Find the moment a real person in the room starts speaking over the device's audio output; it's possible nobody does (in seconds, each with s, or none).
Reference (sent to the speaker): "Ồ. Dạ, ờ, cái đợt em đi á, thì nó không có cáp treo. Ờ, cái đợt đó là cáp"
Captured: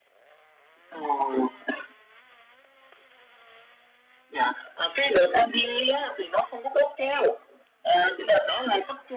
none